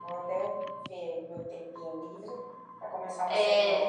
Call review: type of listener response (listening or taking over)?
taking over